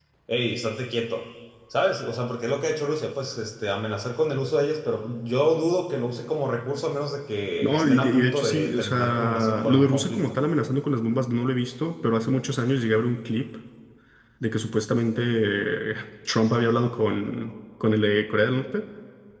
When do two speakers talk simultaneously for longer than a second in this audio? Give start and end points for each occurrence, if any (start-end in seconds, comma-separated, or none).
7.6-10.4